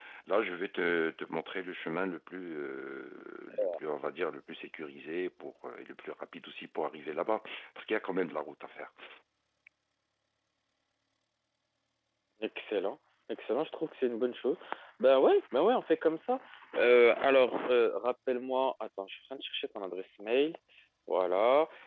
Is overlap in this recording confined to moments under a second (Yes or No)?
Yes